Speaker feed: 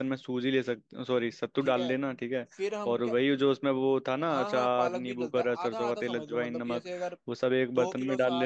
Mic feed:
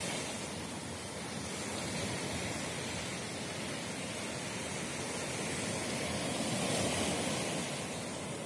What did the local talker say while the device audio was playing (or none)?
none